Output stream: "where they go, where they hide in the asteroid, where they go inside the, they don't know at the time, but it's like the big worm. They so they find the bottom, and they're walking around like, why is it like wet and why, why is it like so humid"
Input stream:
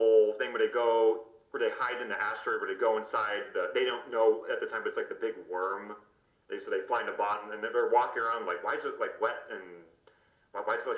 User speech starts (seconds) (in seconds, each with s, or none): none